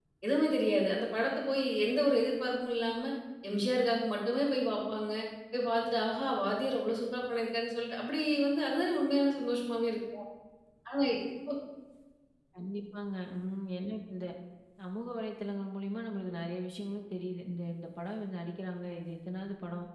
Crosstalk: none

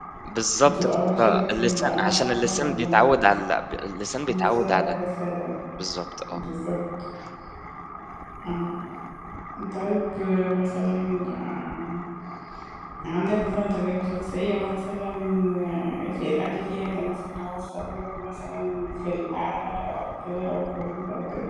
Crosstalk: present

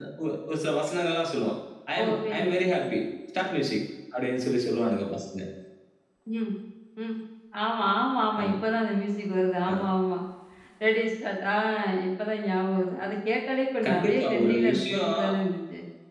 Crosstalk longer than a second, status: present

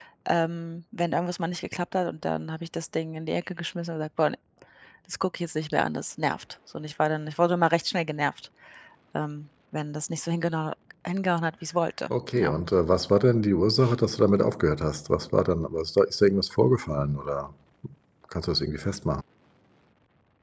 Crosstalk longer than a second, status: none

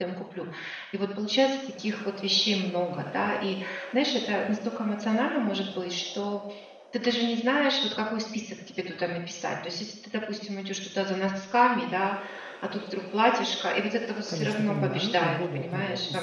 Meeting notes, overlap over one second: present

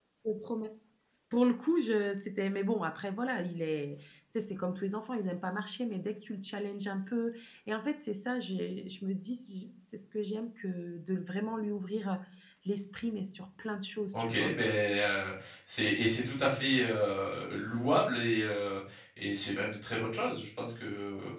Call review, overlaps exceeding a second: none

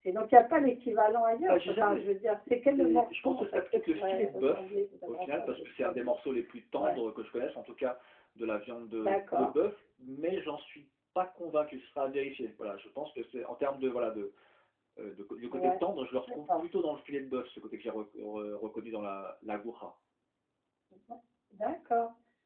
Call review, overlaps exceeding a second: present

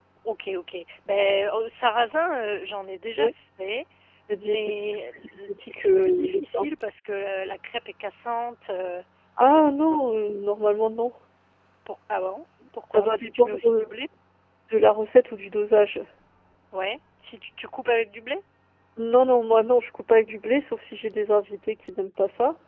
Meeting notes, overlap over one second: present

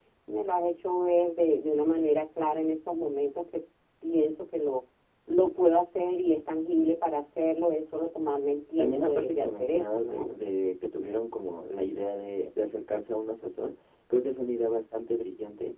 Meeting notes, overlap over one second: present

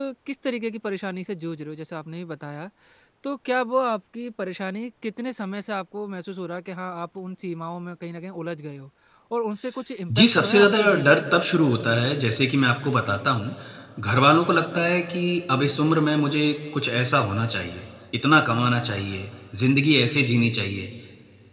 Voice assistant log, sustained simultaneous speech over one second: present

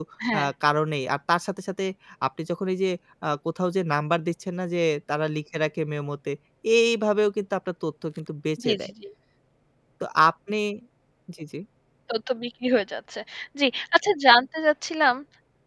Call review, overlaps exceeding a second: none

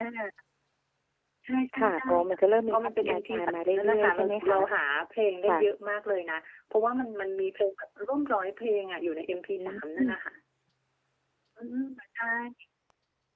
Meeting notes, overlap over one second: present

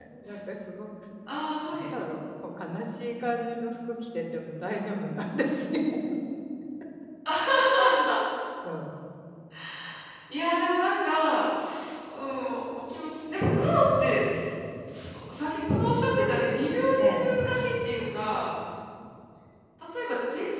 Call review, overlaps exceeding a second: none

